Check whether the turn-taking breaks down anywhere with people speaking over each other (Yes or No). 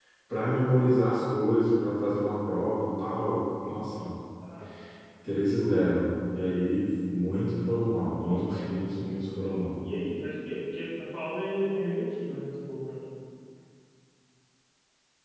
Yes